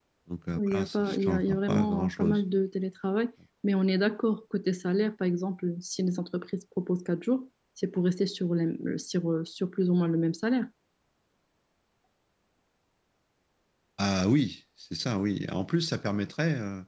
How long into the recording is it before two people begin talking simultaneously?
0.6 s

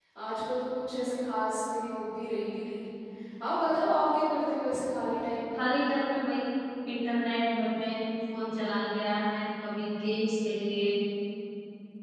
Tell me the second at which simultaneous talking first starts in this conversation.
none

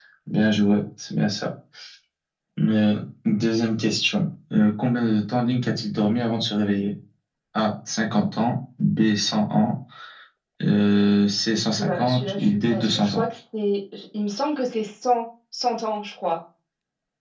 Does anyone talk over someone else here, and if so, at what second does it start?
11.8 s

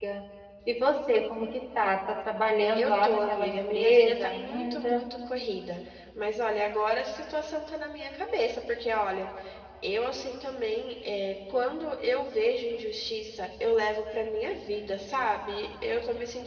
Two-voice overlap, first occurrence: 2.8 s

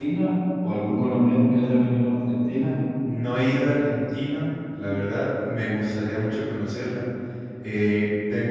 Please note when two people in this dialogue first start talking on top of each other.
none

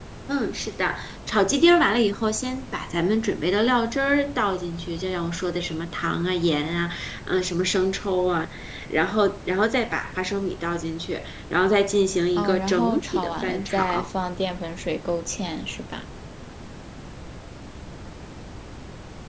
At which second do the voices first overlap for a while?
12.4 s

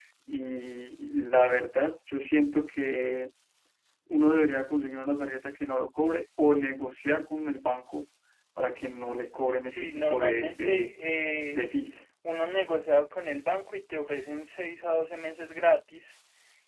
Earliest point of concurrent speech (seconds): 9.6 s

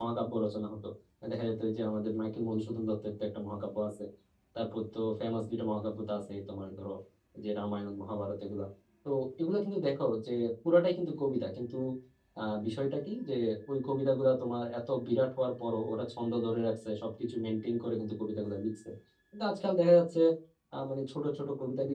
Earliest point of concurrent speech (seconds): none

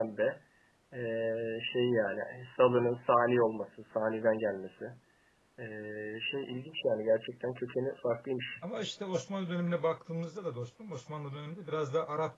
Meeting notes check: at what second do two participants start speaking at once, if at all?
none

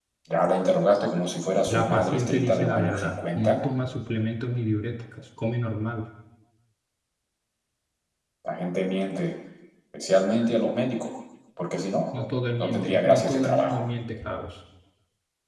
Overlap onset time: 1.7 s

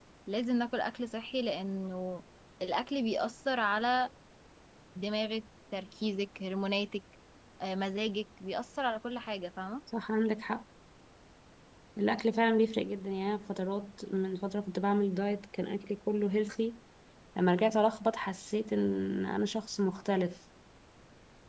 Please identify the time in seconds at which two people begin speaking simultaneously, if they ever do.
none

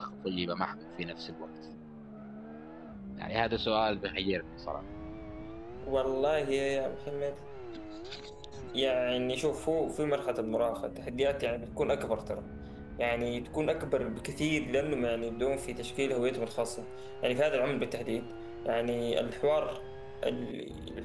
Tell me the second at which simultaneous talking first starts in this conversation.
none

